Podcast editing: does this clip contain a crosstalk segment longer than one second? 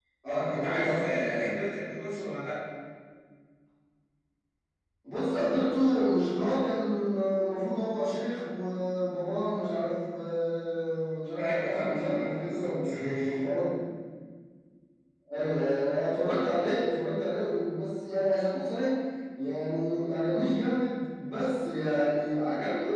Yes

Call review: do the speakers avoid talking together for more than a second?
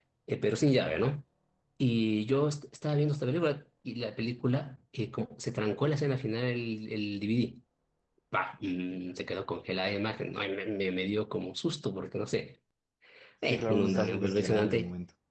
No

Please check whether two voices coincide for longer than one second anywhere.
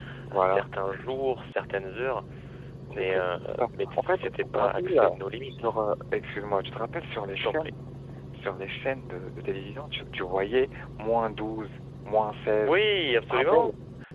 Yes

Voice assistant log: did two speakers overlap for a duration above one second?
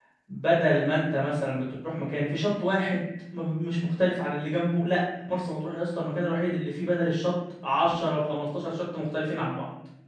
No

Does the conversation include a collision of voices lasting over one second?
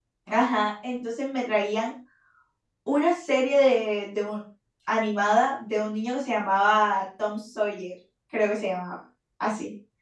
No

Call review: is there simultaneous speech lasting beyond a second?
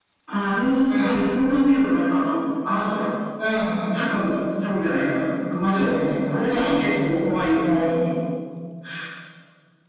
Yes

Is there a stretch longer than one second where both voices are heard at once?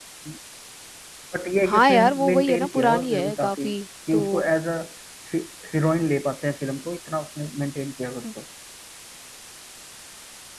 Yes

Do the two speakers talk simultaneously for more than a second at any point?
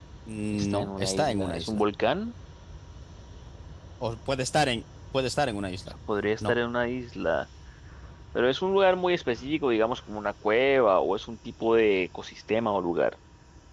Yes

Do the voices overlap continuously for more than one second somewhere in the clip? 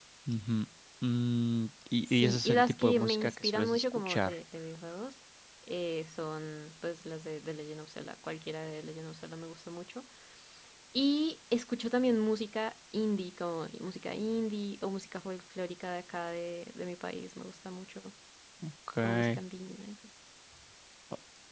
Yes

